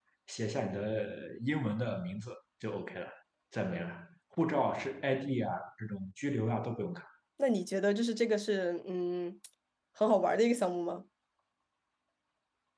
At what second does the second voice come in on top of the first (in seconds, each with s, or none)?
none